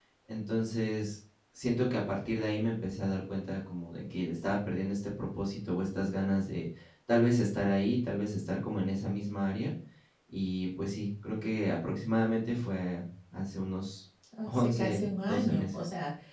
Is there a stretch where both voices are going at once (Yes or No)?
Yes